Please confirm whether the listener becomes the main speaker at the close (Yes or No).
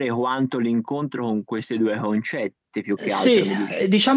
Yes